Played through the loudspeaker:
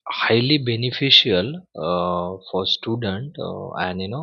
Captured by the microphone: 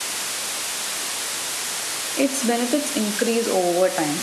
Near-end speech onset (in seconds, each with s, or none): 2.1 s